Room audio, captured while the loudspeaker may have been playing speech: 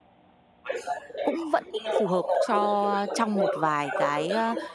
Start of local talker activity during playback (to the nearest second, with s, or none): 1 s